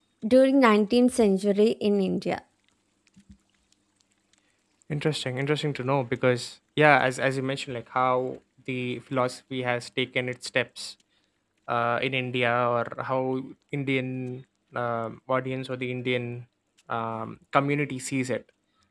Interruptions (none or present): none